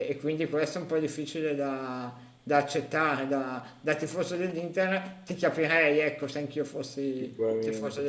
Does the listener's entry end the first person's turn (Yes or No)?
Yes